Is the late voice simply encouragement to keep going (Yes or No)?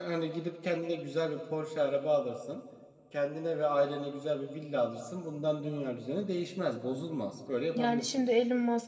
No